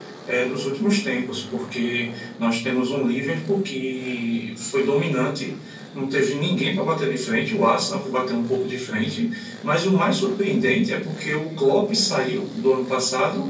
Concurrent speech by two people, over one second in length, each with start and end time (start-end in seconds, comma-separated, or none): none